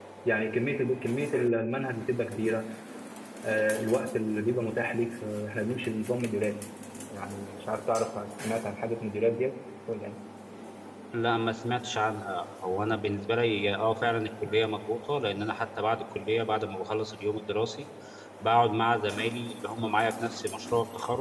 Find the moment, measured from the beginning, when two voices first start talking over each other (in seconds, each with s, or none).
none